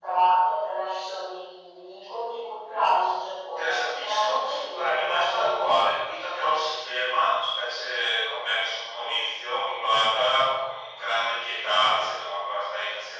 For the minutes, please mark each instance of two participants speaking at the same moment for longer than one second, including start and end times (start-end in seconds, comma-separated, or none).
3.5-5.4